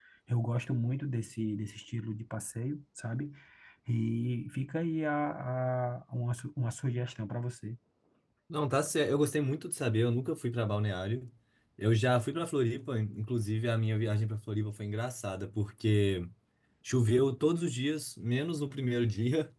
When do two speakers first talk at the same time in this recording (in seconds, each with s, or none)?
none